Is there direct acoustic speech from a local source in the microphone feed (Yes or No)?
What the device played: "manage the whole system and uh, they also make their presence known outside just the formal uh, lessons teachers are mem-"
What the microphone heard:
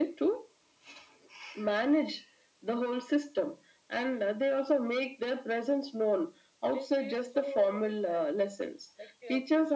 Yes